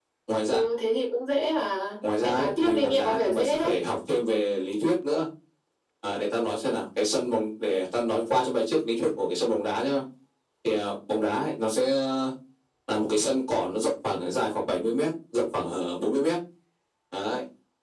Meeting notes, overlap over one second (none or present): present